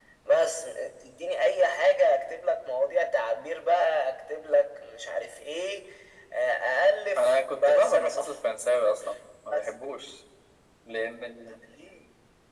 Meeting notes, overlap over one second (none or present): present